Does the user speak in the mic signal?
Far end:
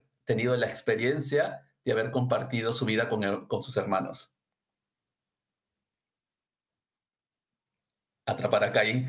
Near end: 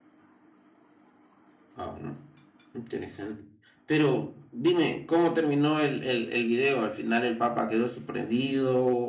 Yes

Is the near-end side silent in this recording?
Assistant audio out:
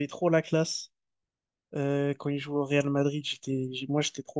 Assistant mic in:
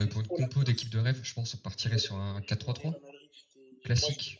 No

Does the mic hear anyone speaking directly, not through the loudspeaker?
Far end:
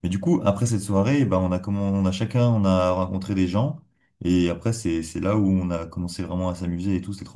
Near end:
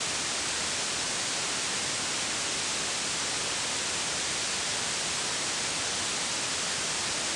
No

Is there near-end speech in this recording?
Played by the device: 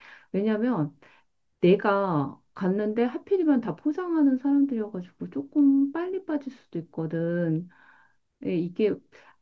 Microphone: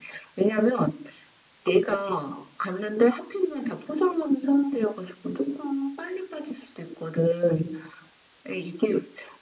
No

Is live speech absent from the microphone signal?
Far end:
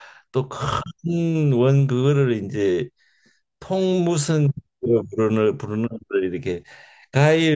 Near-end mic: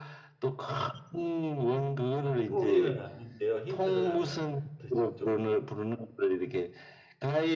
No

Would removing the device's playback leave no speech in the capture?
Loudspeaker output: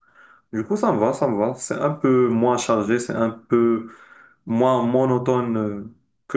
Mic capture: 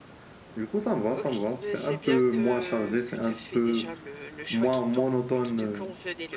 No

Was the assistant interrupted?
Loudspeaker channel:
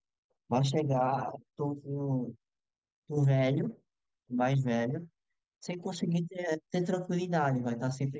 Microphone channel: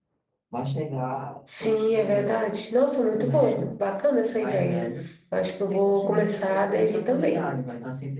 Yes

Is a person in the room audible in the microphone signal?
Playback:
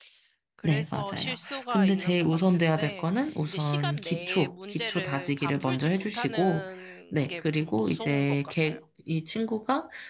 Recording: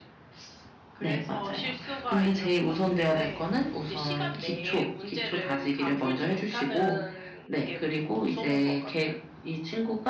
No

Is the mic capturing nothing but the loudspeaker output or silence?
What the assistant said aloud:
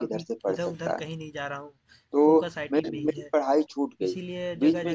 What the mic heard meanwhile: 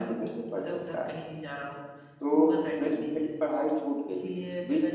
Yes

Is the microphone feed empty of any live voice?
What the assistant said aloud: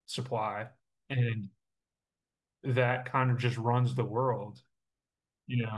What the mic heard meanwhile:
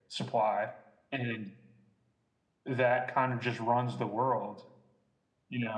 Yes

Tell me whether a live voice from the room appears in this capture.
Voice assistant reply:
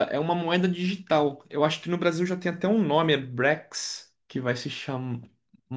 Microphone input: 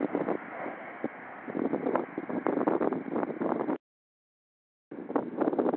No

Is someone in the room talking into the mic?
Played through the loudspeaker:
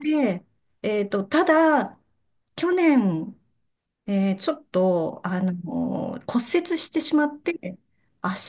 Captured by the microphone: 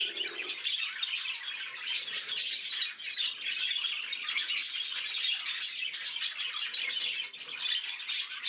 No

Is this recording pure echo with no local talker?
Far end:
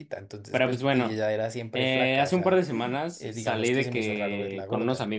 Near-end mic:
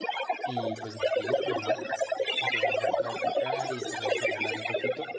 No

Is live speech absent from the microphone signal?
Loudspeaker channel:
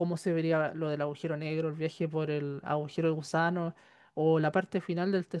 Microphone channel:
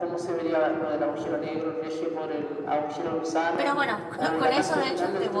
No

